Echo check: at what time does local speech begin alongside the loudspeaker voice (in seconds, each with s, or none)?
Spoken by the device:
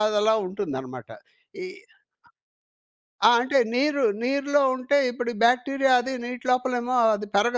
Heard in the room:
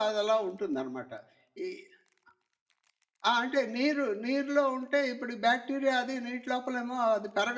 none